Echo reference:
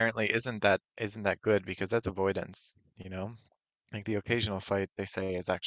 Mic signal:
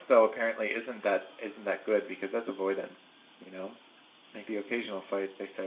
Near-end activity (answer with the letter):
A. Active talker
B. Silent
B